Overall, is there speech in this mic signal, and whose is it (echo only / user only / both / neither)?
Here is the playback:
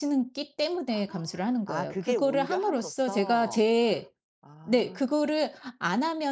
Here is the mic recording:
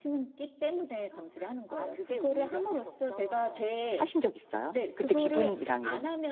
both